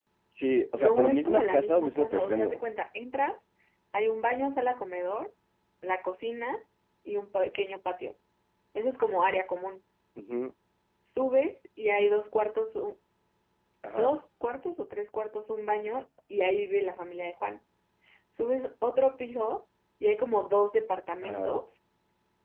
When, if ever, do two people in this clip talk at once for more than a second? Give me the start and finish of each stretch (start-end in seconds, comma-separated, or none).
0.8-2.6